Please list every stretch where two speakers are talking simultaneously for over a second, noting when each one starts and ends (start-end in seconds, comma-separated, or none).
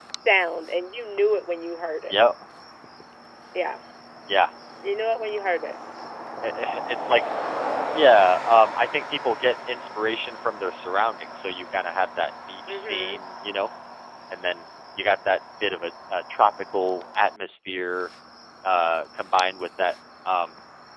none